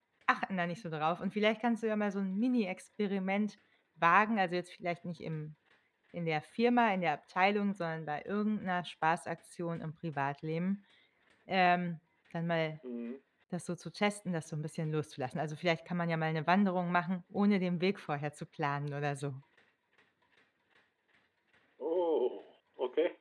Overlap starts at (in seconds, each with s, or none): none